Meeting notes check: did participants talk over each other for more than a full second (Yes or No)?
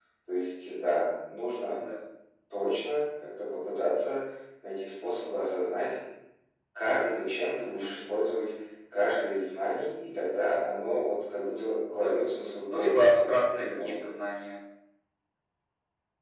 Yes